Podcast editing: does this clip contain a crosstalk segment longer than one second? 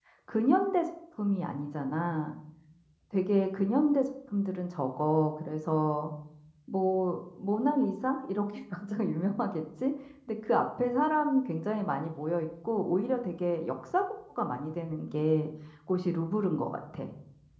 No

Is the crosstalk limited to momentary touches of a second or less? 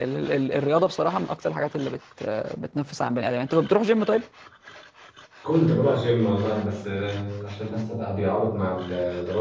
Yes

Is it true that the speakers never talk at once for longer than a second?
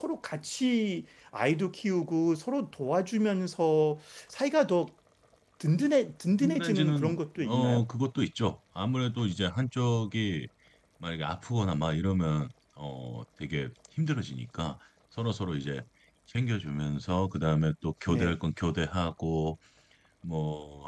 No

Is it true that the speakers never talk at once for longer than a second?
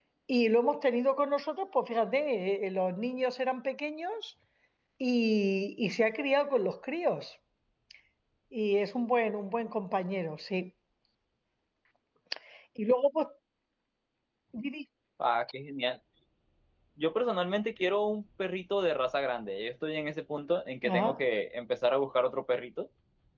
Yes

